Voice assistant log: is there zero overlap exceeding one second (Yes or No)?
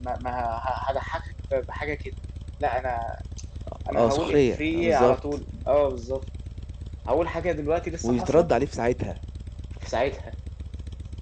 No